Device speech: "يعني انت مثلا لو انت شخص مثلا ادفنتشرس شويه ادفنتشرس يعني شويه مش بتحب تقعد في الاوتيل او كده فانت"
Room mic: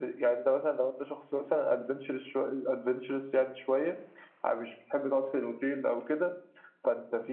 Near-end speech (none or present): none